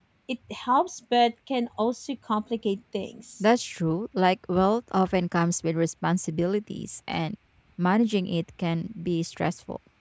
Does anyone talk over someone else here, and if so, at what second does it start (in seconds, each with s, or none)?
none